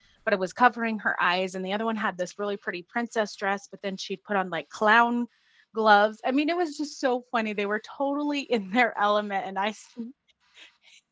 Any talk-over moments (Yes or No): No